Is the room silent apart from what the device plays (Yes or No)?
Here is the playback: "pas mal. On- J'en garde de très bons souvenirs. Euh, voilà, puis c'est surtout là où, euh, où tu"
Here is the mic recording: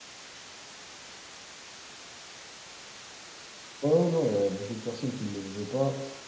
No